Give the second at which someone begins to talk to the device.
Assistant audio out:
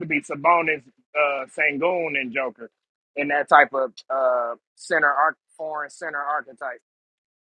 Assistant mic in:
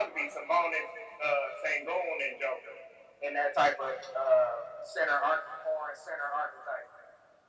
none

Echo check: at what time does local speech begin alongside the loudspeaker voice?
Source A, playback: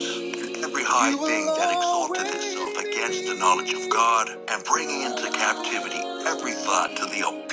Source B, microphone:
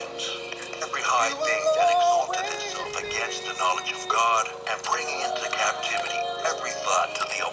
none

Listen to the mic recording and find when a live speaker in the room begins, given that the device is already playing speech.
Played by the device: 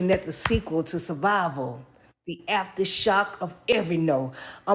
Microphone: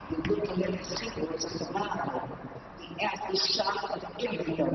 none

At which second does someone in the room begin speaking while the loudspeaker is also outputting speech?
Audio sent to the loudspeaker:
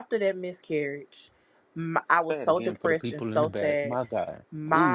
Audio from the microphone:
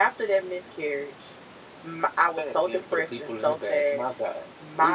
none

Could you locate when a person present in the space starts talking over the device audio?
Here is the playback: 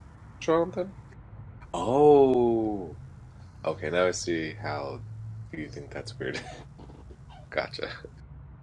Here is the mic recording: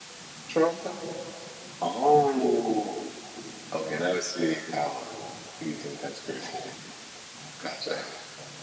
none

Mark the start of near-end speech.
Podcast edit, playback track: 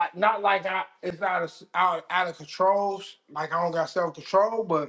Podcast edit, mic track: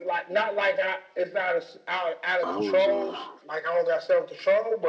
2.4 s

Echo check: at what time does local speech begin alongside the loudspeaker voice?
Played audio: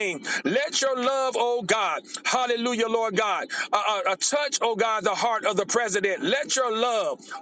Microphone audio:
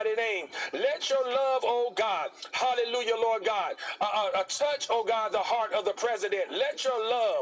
none

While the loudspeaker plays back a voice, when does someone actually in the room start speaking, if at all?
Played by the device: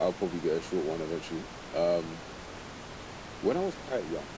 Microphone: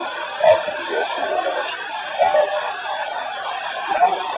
none

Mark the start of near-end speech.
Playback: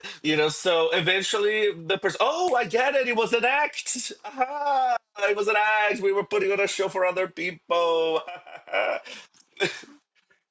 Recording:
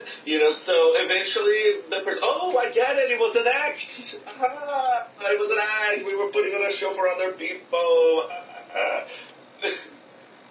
none

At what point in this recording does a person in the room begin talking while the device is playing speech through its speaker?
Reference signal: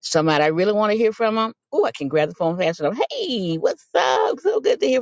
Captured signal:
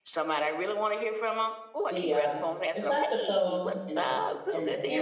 1.9 s

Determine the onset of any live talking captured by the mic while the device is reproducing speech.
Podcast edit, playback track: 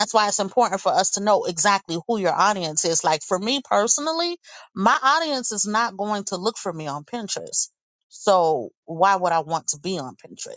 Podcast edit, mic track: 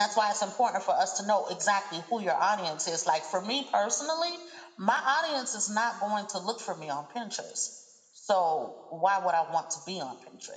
none

